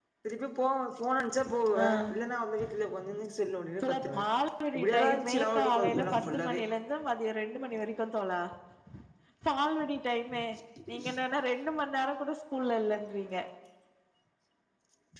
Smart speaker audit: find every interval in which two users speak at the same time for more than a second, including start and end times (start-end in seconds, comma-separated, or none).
4.9-6.6